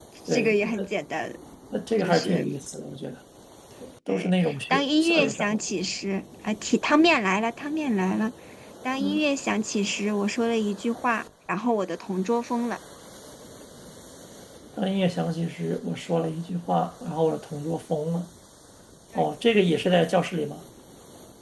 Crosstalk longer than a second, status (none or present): present